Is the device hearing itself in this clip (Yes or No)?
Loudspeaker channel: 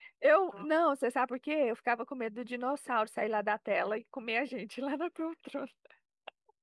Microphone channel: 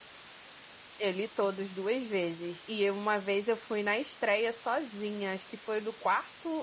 No